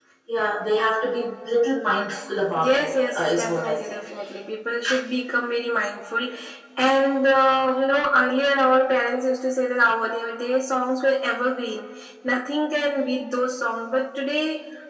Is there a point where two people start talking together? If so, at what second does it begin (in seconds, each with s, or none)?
2.6 s